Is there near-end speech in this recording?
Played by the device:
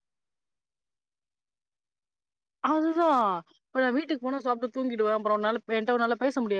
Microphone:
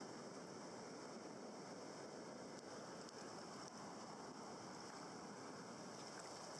No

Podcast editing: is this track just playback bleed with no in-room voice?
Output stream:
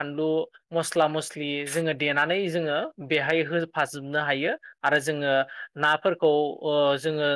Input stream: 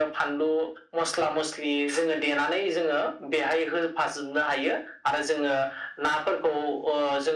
Yes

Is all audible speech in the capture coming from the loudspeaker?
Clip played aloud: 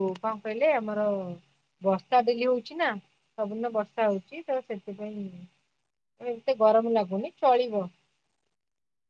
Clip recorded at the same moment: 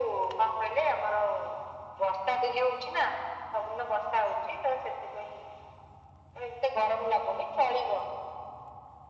Yes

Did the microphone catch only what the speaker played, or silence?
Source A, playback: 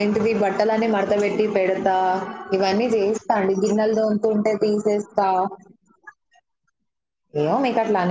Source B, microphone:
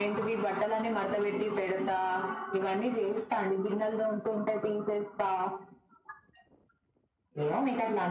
Yes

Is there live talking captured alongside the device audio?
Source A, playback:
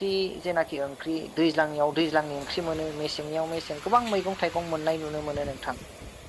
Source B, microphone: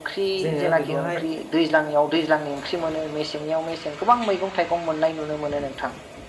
Yes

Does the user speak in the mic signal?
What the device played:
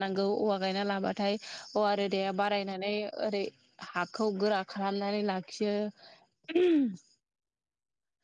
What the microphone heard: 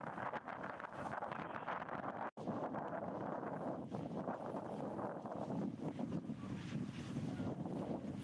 No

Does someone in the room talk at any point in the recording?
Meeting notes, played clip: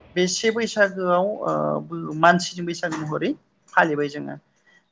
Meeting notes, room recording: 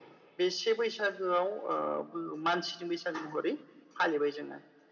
No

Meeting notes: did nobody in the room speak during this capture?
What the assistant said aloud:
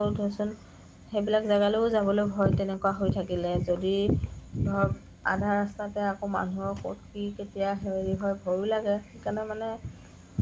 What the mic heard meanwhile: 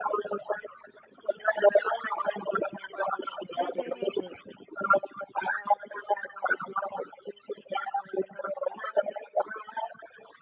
No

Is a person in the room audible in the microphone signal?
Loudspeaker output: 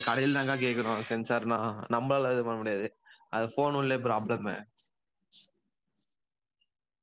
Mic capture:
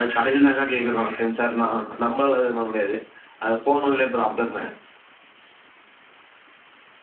No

